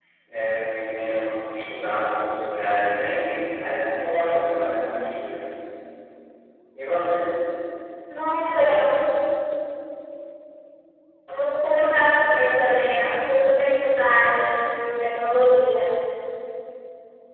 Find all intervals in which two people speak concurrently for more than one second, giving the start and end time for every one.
none

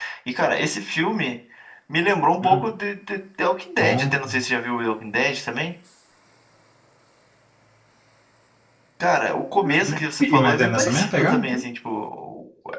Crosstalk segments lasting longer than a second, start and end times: 9.6-11.6

